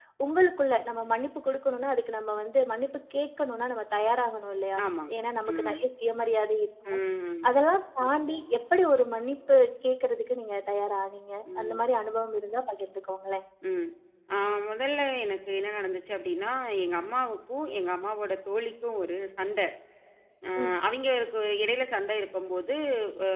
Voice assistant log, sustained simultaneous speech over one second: none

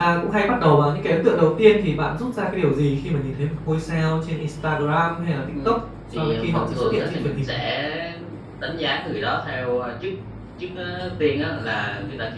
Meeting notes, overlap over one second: present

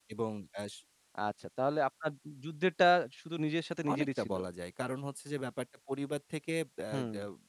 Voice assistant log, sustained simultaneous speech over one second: none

